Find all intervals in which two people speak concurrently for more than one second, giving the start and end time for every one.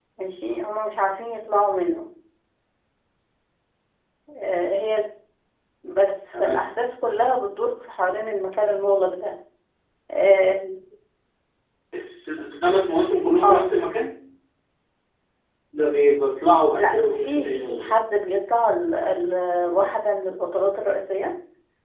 16.8-18.0

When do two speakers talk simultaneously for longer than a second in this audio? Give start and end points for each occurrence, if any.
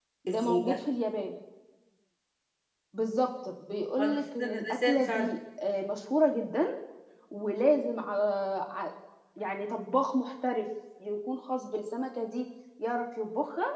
4.0-5.3

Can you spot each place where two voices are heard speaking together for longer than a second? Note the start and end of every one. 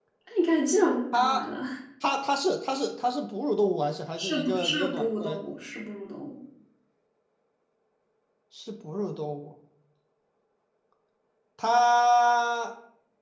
4.2-5.4

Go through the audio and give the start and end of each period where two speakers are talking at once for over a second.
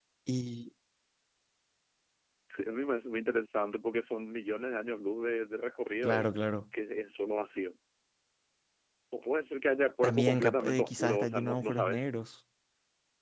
10.0-12.1

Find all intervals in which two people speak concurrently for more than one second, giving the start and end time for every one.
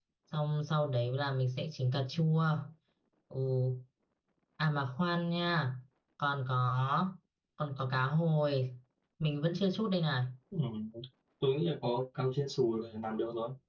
none

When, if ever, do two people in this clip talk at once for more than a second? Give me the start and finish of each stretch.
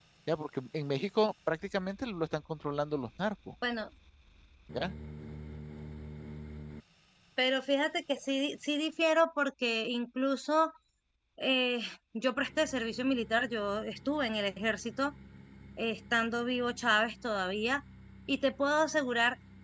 none

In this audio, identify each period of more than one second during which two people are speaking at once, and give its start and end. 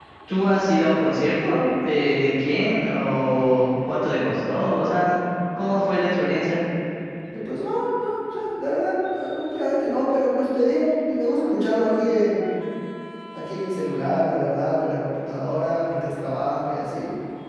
none

